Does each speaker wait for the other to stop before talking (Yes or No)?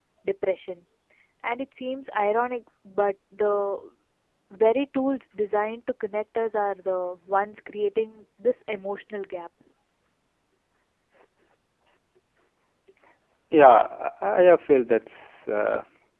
Yes